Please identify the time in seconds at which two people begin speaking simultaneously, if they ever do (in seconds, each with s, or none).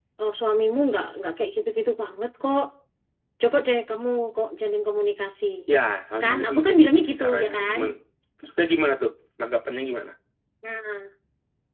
6.2 s